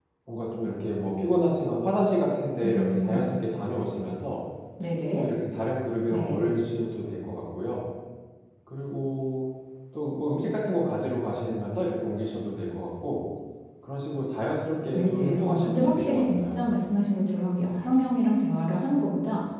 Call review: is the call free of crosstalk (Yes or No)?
No